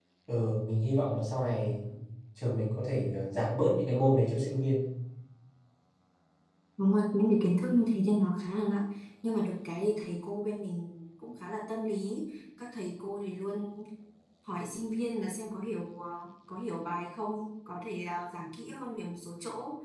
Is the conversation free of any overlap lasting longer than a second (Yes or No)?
Yes